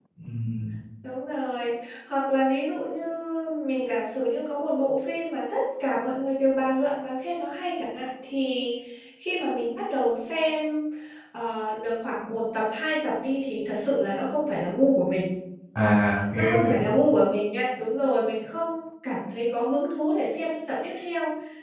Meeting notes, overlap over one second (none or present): none